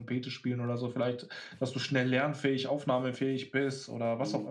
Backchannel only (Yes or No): No